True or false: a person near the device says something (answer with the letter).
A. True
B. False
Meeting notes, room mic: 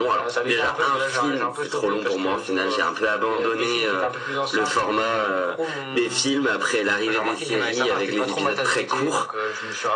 B